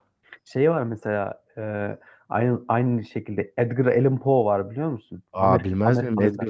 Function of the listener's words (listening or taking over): taking over